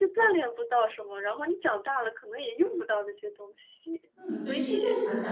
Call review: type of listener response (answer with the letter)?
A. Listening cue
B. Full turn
B